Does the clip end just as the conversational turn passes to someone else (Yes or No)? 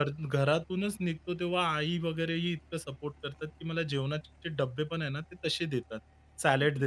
No